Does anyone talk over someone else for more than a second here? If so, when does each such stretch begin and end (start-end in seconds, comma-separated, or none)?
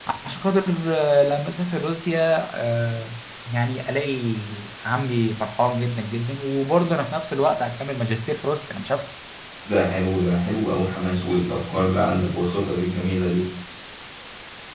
none